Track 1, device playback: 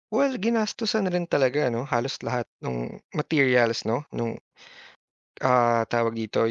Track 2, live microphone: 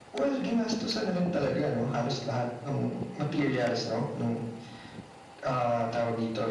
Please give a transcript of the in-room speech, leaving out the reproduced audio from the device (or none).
none